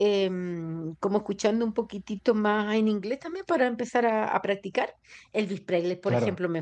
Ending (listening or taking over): listening